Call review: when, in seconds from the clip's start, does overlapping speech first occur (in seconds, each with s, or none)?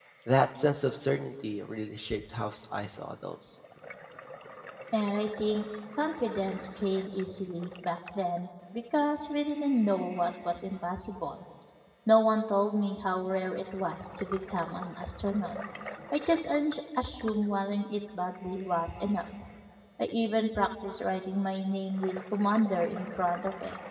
none